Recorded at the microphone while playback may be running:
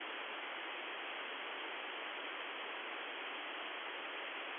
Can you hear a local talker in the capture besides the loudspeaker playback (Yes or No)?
No